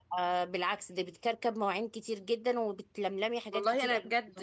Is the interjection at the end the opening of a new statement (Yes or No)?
Yes